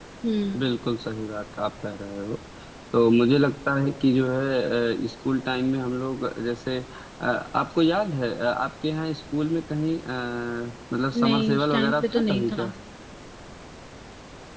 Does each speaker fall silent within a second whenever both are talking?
No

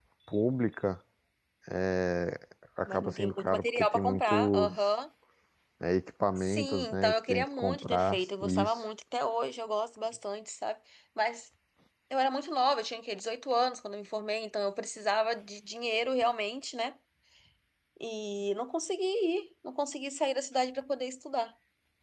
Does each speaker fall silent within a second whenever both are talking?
No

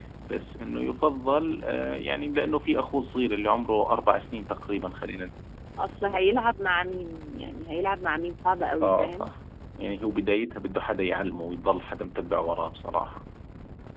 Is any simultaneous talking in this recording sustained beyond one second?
No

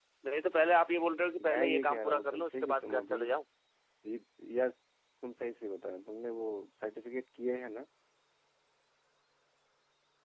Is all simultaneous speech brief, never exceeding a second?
No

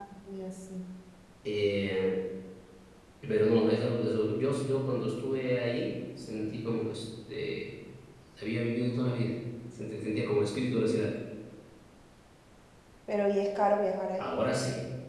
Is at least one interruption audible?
No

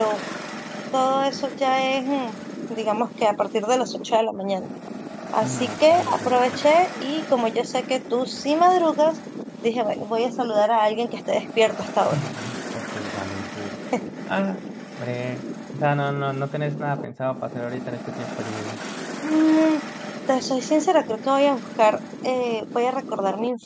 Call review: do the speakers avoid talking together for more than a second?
No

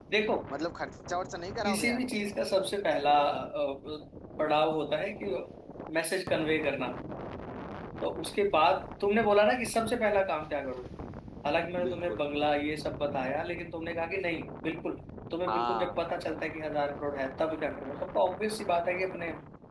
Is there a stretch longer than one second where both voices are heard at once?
No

